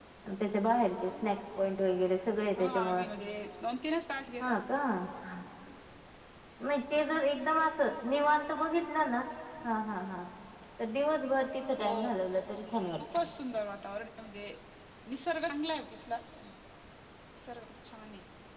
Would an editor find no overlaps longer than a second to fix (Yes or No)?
Yes